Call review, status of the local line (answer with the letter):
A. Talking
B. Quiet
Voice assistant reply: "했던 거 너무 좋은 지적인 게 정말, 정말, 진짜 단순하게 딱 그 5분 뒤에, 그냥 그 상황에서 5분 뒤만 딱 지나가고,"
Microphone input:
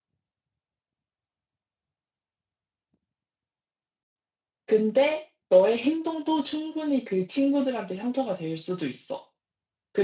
A